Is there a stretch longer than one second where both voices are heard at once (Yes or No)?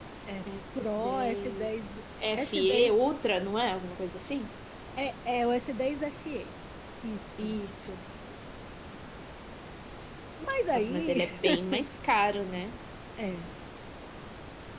Yes